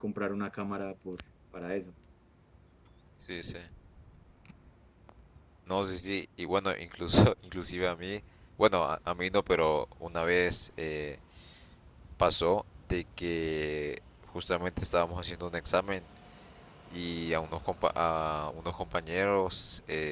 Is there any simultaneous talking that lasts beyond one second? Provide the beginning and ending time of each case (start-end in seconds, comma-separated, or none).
none